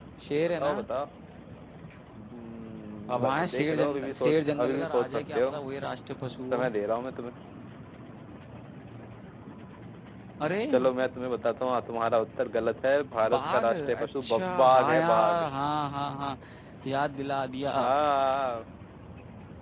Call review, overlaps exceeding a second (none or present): present